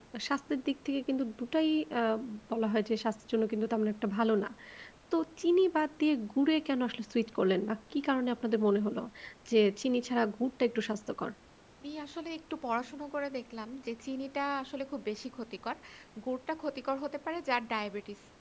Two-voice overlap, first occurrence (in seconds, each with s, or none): none